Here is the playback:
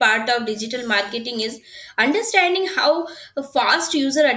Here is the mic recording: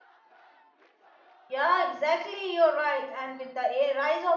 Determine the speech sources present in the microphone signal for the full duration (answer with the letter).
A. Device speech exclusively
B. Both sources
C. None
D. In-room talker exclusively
D